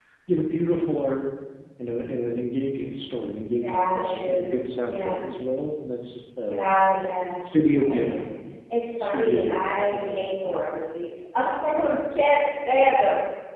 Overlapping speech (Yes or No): Yes